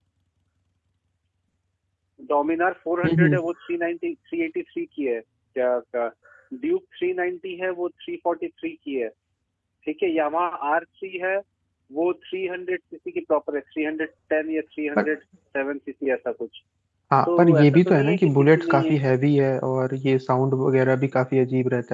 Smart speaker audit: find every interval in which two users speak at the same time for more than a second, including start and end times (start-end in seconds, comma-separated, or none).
17.2-18.9